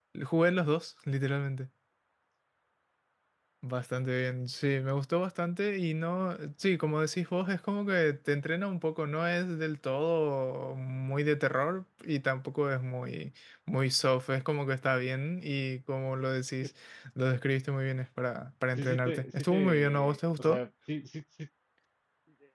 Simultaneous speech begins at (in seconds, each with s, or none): 18.8 s